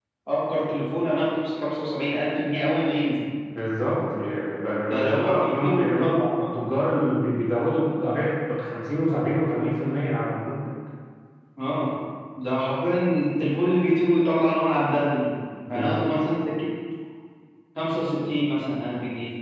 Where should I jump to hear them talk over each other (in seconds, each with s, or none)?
4.9 s